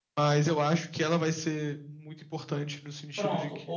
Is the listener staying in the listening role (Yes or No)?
No